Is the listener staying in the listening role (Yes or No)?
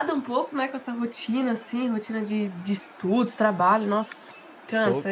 No